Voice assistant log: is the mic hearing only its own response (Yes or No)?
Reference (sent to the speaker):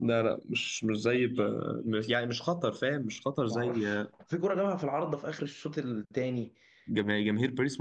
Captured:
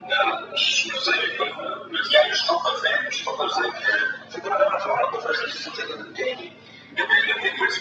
Yes